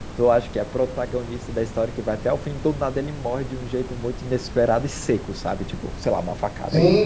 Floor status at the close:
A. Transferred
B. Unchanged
B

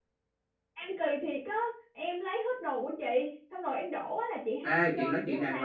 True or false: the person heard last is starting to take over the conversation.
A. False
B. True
B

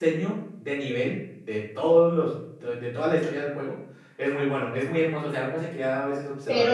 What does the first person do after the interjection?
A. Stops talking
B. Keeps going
A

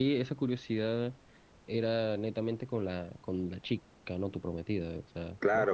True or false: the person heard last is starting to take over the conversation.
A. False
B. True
B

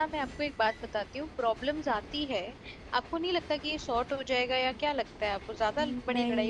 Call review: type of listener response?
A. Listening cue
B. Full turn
B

